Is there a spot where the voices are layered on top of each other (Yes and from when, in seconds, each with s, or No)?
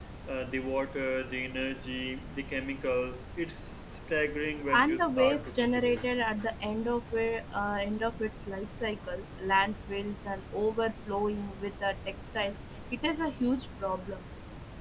Yes, from 4.7 s